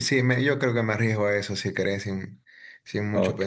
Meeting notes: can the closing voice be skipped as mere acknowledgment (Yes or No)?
No